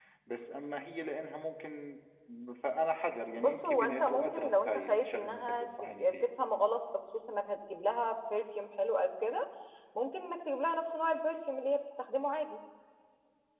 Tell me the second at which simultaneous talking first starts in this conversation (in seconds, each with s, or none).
3.3 s